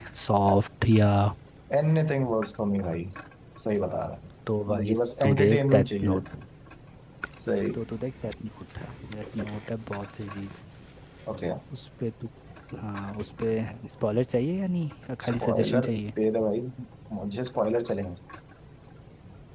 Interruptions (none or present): present